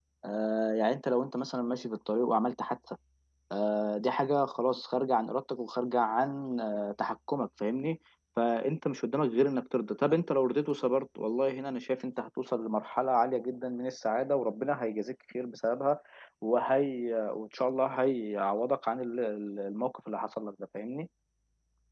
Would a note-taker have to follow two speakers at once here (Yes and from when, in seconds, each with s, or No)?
No